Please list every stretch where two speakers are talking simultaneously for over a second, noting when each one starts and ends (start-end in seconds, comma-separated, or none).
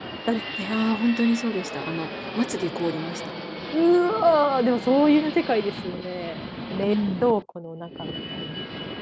none